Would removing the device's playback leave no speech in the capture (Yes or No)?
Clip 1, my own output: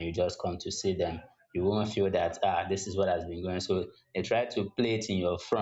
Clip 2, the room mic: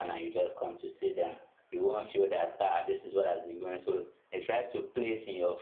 Yes